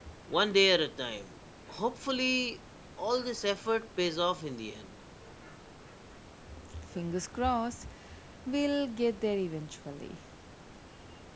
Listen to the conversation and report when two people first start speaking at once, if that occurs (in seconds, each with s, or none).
none